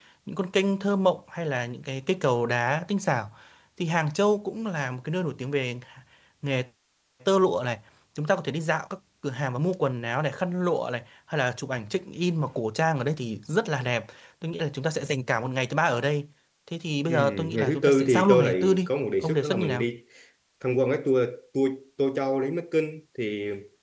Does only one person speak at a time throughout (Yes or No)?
No